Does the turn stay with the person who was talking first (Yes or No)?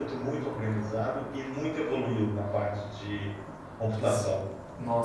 No